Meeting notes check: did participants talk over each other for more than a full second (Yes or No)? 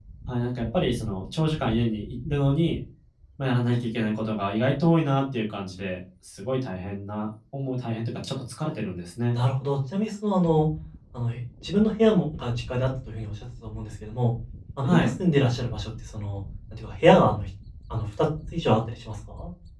No